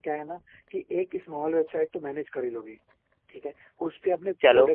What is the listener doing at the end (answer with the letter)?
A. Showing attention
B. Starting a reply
A